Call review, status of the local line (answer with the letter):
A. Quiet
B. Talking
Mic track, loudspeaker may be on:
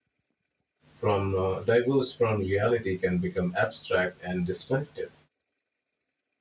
B